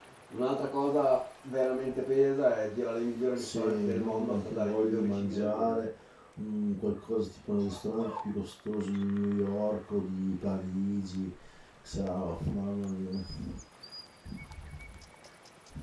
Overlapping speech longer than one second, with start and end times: 3.4-5.8

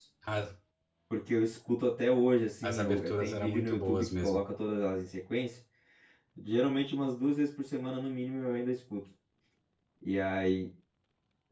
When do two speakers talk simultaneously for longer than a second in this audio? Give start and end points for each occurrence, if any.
2.6-4.4

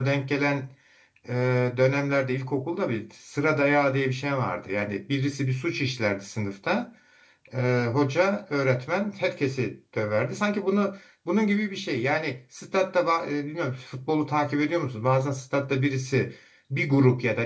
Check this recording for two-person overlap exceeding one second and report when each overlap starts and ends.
none

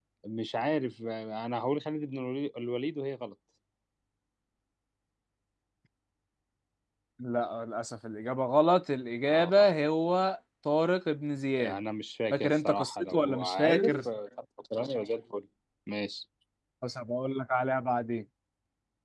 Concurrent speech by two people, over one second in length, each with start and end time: 12.3-14.0

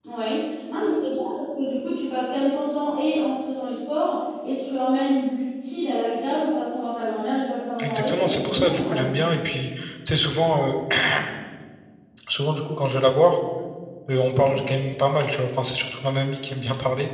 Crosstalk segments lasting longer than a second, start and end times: 7.8-9.2

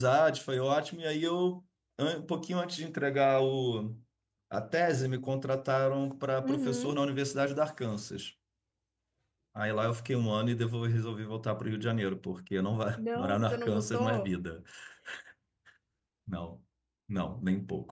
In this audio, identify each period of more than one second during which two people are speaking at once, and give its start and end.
13.0-14.3

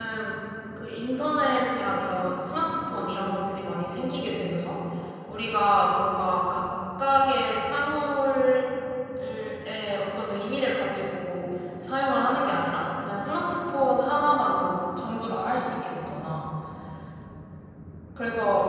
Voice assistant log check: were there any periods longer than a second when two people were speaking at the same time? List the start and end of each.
none

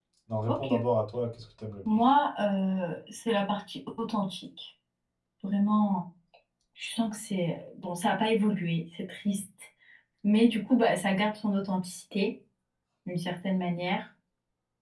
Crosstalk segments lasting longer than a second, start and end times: none

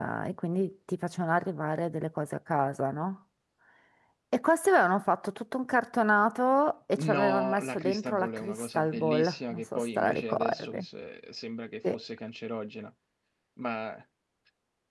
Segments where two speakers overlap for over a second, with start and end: 7.0-10.8

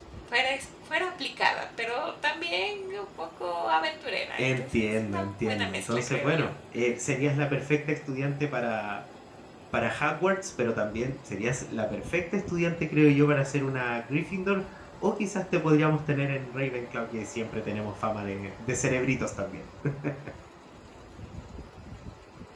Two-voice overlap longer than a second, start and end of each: 4.4-6.5

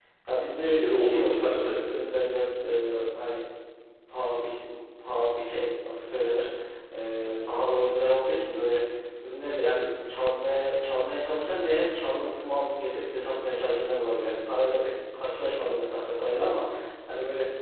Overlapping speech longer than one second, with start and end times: 0.6-2.0

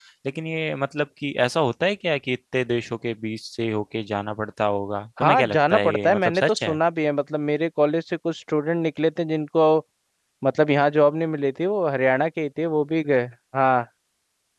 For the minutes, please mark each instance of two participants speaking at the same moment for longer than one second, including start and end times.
5.2-6.8

